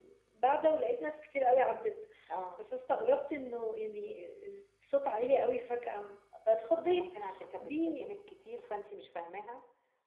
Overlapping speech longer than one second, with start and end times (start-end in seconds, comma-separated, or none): none